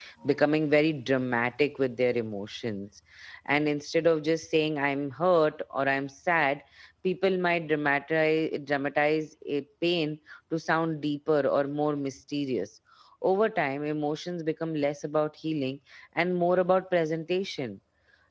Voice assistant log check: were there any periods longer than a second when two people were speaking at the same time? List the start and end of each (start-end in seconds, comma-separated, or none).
none